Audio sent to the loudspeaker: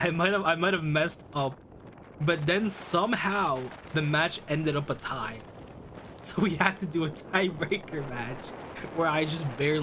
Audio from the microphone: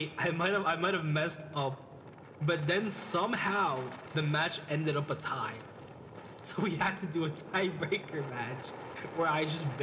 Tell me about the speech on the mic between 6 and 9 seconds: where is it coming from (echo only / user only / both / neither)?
echo only